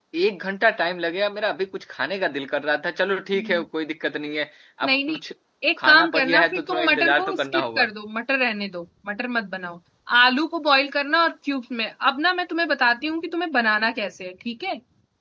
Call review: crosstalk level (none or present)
present